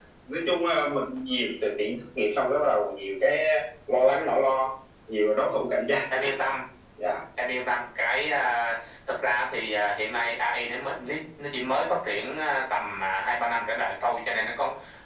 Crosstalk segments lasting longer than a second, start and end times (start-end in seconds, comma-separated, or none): none